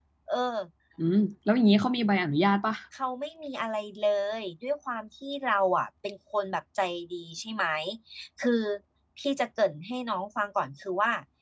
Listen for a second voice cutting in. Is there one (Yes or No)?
No